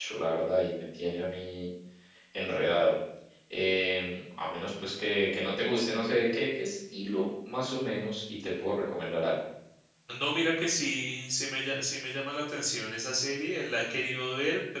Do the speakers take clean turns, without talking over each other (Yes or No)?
Yes